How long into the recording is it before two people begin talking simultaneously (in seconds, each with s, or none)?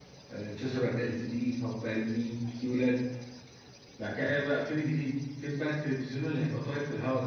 none